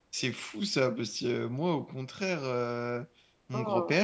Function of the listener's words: listening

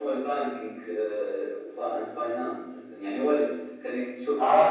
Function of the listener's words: taking over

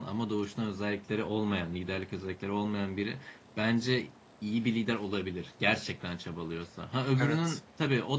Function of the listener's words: listening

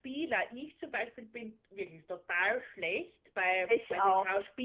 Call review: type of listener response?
listening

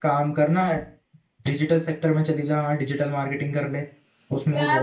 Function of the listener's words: taking over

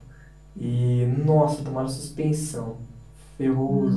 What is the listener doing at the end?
taking over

